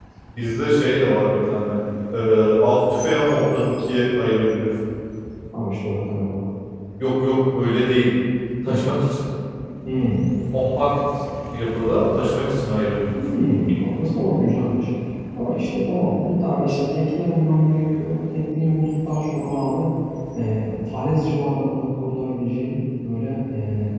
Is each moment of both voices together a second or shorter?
Yes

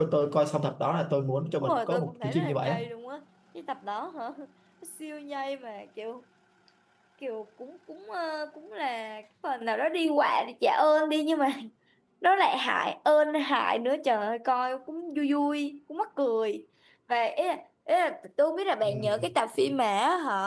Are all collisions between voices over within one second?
No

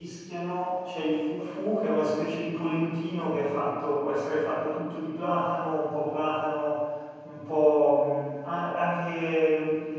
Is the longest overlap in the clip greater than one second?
No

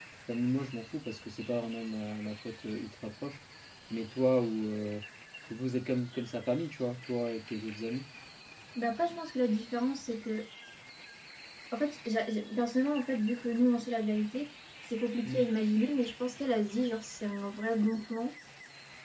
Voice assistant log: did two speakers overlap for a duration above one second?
No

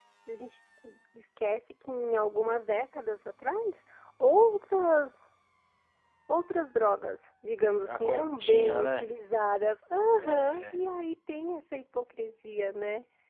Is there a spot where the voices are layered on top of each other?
Yes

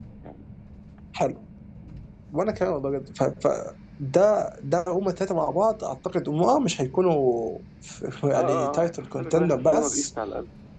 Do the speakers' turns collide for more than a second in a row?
Yes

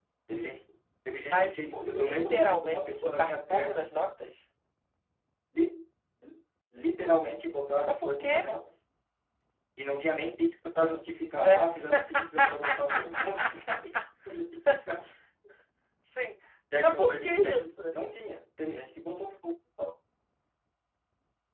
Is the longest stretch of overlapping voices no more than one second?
No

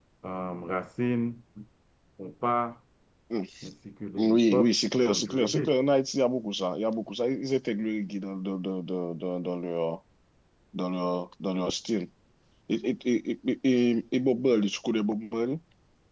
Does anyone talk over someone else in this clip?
Yes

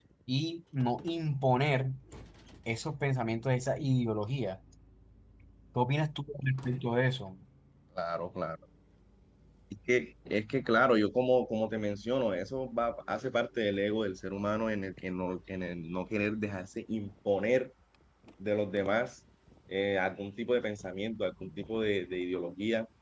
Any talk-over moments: No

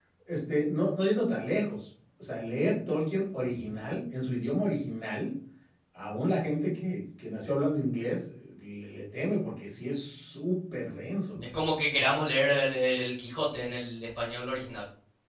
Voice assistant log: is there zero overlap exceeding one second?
Yes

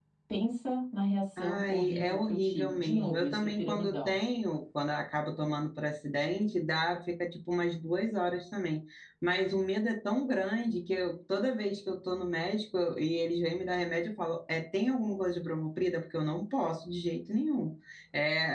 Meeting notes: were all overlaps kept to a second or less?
No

